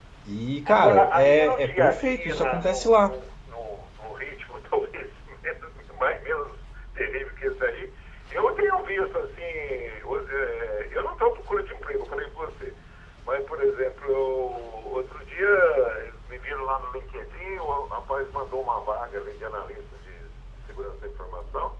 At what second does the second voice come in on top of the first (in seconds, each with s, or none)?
0.7 s